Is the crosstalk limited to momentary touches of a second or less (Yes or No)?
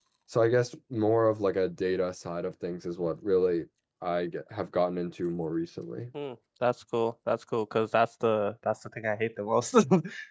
Yes